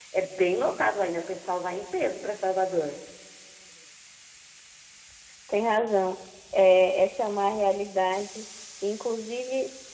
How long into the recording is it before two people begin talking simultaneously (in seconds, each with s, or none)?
none